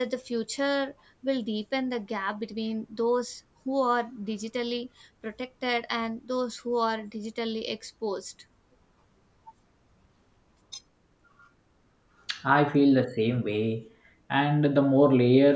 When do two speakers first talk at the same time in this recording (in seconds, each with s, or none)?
none